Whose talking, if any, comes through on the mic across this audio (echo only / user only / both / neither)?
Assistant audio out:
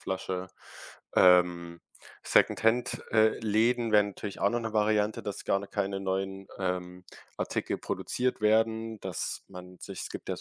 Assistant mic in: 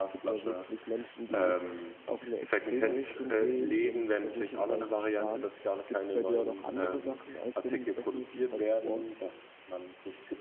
both